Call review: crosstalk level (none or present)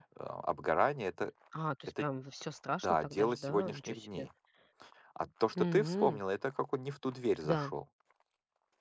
present